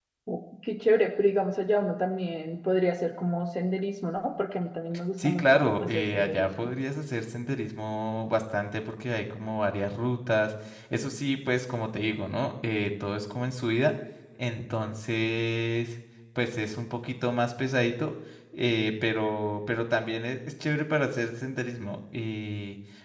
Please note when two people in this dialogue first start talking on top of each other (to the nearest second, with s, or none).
5 s